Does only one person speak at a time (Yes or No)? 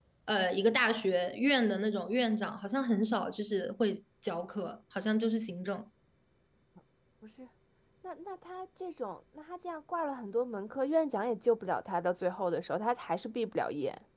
Yes